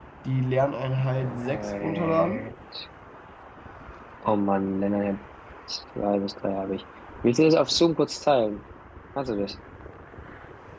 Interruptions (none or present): present